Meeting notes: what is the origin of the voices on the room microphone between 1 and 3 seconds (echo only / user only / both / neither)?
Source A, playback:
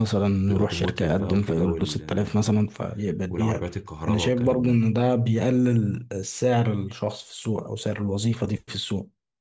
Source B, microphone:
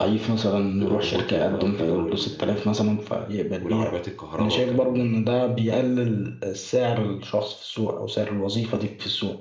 echo only